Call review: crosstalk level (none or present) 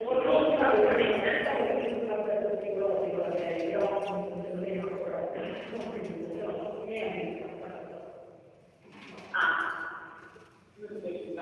present